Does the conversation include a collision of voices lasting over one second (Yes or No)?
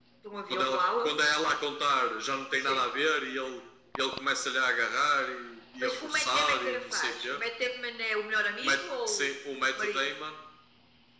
Yes